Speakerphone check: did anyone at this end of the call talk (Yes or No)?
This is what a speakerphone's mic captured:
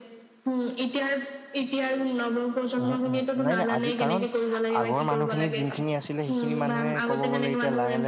Yes